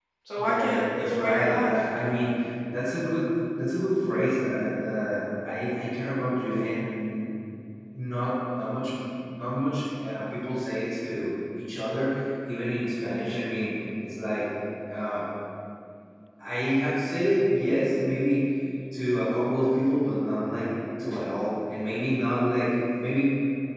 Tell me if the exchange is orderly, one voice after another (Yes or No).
No